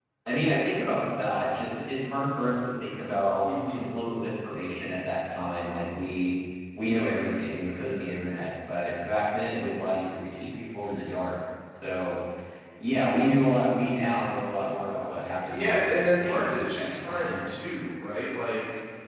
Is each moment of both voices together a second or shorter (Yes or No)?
No